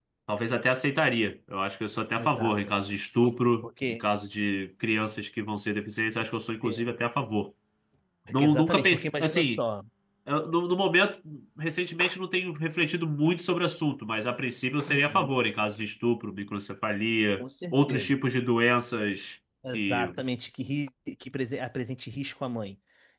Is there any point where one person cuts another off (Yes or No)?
Yes